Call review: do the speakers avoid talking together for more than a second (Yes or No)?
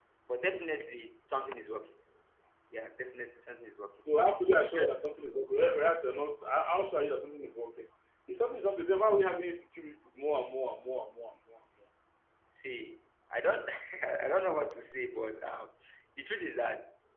Yes